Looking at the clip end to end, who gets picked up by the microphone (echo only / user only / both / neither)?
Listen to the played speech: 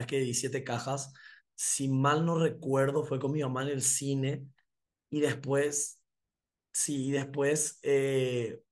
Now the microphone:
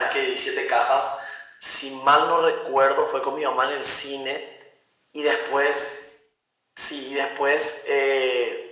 echo only